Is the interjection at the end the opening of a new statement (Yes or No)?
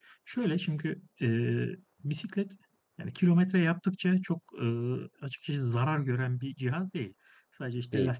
No